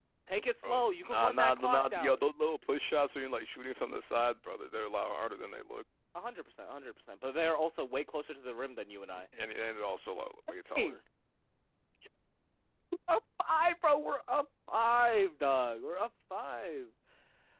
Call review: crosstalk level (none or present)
present